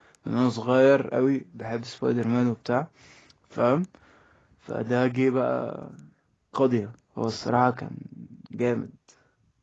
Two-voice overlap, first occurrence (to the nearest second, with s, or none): none